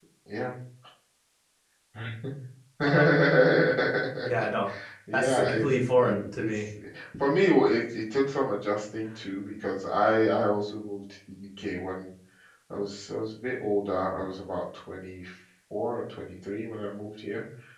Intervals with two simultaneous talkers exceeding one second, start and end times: 5.1-6.7

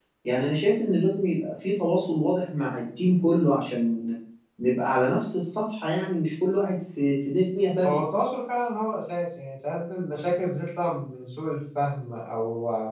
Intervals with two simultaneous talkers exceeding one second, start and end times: none

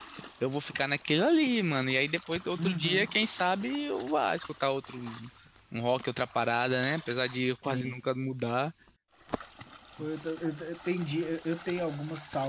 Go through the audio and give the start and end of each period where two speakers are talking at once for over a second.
none

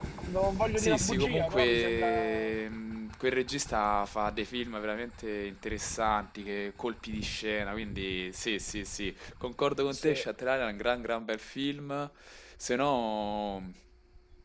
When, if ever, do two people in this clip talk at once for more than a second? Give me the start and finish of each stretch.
0.8-2.5

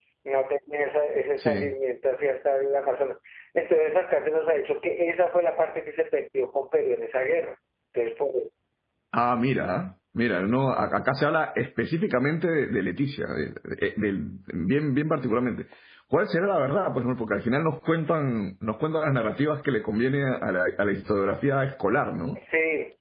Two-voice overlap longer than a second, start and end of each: none

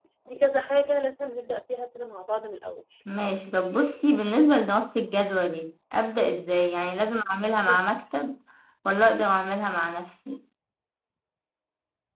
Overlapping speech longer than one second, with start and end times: none

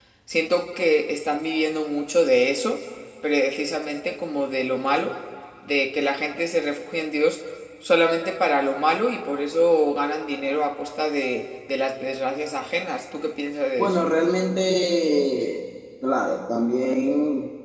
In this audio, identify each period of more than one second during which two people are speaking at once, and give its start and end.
none

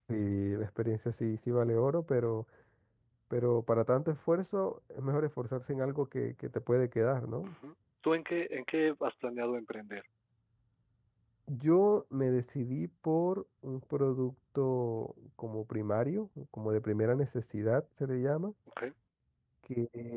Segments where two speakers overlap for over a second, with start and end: none

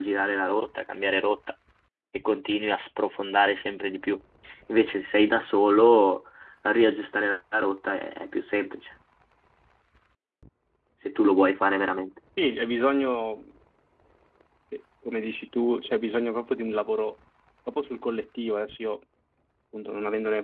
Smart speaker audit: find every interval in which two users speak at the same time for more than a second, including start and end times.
none

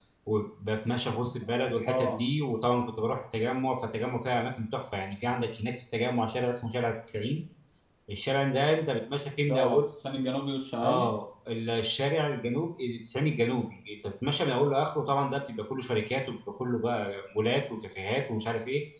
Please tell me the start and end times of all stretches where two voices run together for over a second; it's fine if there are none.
none

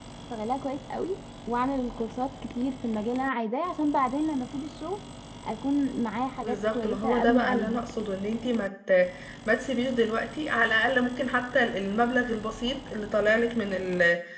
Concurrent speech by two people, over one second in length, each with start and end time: 6.4-7.8

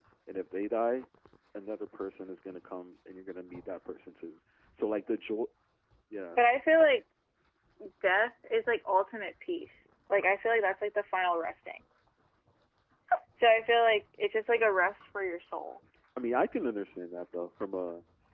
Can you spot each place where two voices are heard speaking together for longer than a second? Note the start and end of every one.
none

